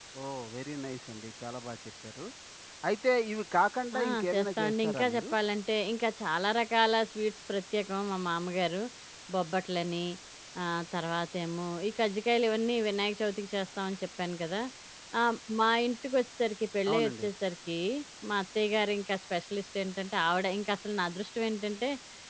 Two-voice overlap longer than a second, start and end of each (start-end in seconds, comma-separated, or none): 4.0-5.2